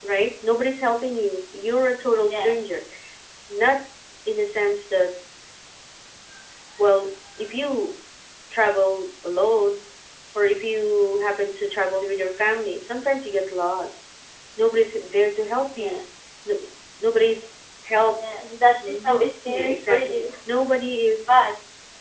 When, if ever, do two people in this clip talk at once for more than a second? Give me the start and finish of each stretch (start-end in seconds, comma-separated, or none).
18.9-20.2